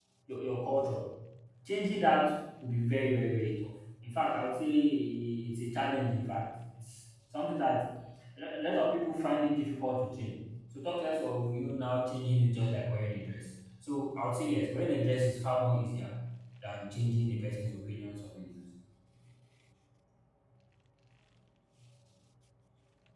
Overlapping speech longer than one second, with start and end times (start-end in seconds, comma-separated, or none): none